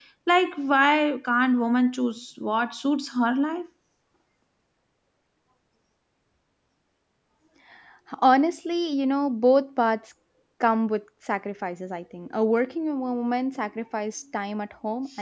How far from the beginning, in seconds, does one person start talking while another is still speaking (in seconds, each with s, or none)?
none